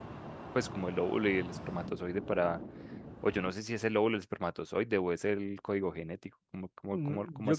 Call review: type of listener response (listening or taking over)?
taking over